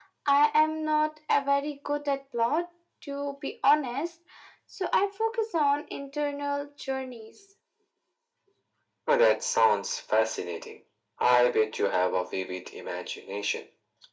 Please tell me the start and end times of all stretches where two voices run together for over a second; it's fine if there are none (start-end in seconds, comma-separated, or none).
none